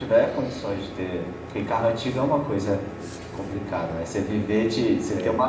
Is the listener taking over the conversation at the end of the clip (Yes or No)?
No